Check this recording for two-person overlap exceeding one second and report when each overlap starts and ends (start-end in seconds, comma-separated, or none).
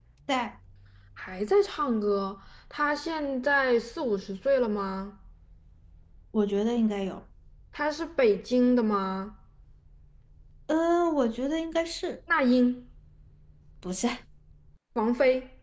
none